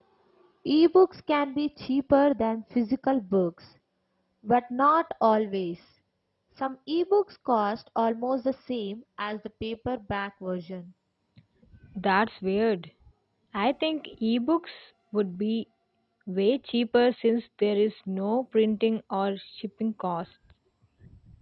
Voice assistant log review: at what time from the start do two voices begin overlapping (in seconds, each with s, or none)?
none